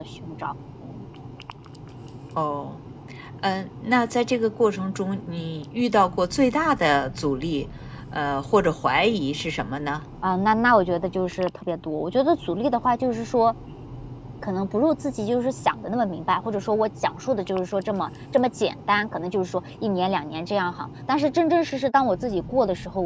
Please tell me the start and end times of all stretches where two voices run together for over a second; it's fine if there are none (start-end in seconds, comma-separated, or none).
none